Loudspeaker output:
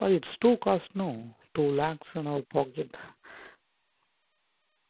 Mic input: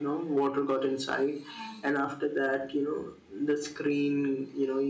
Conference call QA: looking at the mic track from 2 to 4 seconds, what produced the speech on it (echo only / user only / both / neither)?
user only